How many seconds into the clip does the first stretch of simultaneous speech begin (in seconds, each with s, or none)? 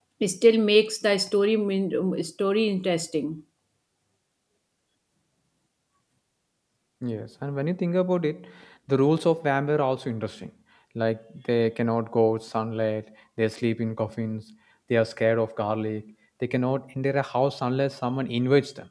none